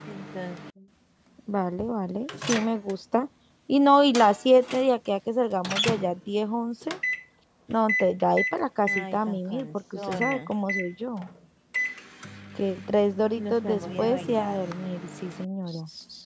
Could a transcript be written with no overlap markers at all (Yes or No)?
No